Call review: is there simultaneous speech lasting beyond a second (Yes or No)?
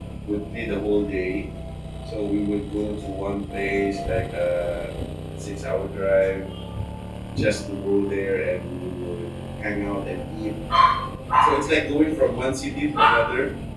No